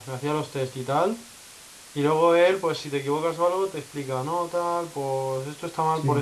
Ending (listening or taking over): listening